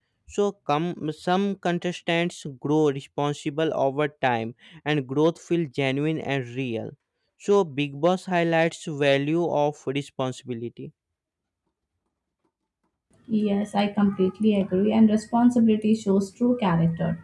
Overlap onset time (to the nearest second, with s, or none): none